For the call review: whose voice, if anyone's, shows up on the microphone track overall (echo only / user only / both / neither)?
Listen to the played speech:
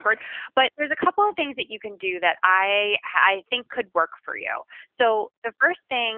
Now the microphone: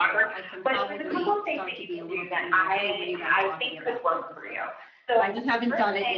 both